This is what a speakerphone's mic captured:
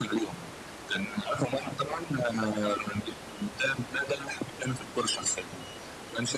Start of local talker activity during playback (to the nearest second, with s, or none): none